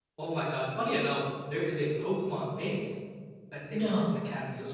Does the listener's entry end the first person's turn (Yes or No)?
No